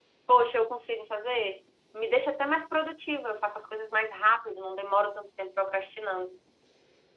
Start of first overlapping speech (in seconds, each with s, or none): none